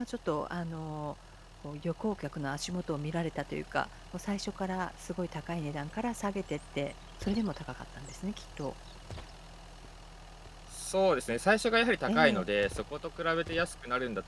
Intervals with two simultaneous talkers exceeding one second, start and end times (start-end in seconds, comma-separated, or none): none